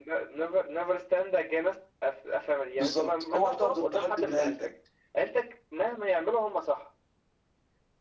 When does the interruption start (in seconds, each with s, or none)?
2.8 s